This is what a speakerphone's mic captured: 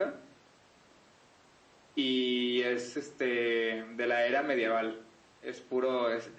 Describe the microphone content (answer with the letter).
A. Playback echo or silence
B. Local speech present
A